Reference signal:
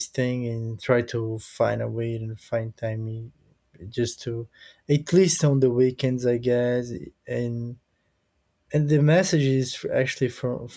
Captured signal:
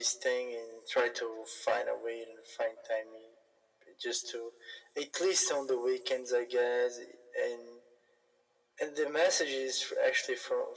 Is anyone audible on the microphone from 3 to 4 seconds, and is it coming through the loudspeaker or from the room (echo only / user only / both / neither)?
echo only